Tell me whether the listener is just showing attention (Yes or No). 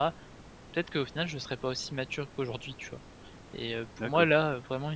Yes